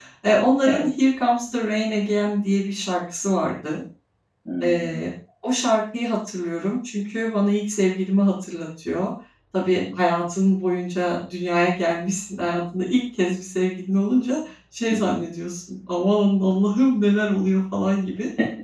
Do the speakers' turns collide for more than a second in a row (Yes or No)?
No